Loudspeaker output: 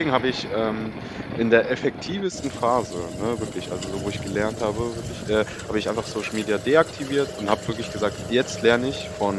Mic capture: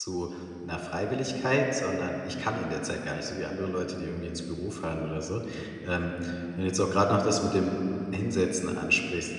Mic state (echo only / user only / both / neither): user only